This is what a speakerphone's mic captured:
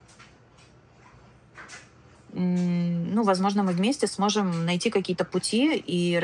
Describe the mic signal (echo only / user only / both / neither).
user only